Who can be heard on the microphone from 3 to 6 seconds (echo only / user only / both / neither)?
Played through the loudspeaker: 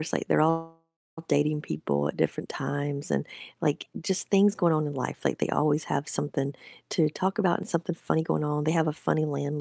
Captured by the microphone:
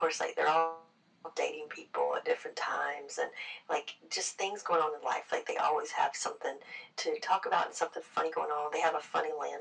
echo only